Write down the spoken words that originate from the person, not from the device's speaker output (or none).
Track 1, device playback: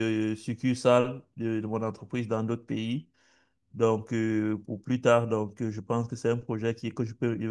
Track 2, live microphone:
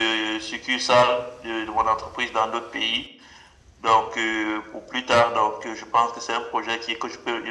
none